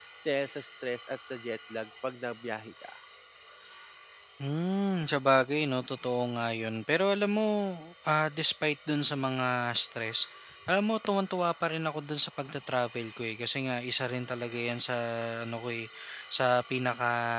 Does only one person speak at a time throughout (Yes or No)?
Yes